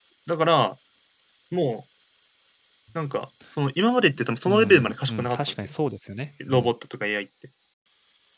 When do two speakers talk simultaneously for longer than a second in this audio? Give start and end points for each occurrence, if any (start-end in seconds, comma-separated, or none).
4.5-5.7